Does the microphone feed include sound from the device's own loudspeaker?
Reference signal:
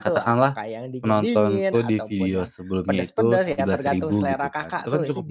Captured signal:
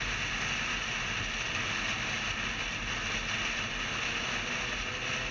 No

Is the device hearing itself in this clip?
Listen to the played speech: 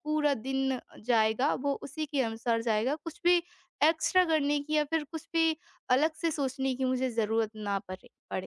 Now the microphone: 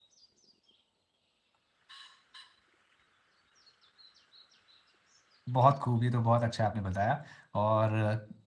No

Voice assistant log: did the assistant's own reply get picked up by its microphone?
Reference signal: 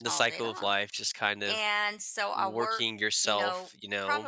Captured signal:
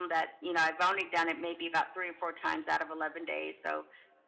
No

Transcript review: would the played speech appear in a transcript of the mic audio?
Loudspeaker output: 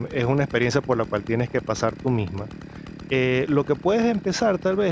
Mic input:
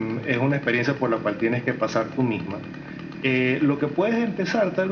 Yes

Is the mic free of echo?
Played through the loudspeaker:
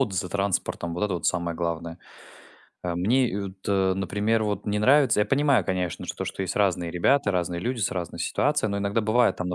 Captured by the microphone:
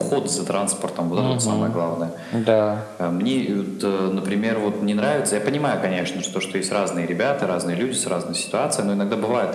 No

